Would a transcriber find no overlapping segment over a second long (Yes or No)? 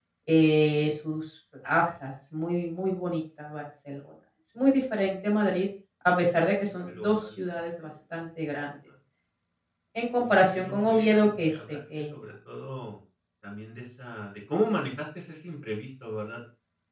No